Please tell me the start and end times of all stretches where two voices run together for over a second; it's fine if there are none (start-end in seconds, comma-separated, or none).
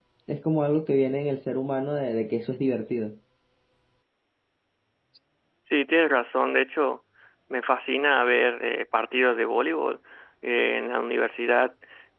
none